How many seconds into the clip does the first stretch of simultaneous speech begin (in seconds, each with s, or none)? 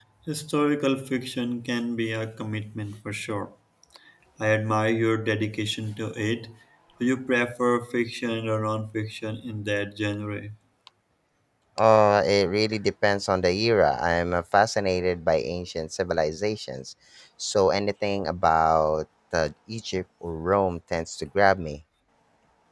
none